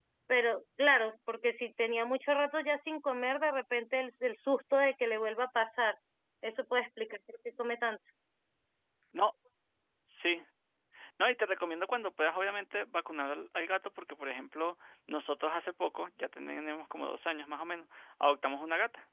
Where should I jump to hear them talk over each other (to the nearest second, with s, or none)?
none